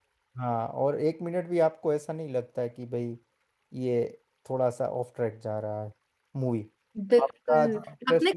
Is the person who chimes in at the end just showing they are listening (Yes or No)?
No